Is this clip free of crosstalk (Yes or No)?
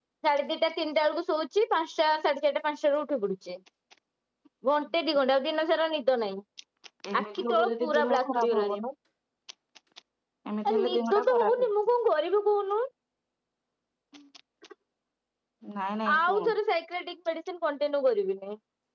No